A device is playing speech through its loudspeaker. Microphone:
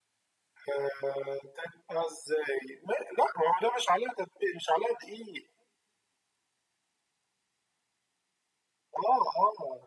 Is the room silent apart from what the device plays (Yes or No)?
Yes